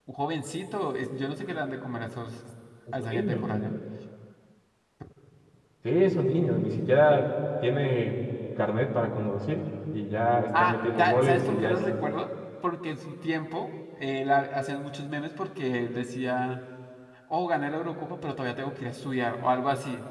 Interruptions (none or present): present